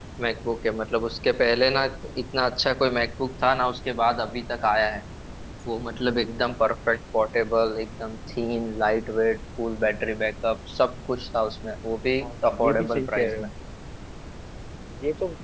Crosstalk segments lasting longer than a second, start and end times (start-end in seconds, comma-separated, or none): 12.2-13.5